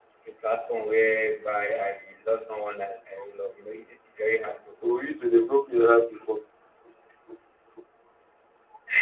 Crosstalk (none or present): none